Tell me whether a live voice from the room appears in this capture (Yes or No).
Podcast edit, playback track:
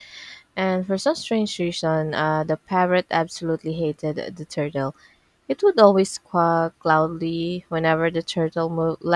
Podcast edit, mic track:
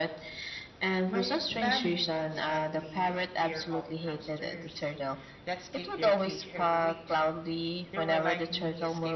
Yes